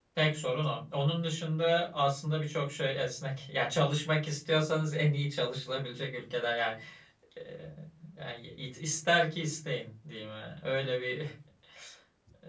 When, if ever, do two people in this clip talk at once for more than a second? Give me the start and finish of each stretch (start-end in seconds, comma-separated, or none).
none